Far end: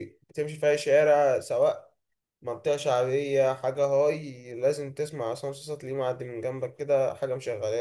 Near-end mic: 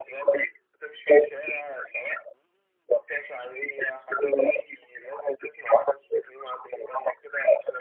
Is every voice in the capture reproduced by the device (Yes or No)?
Yes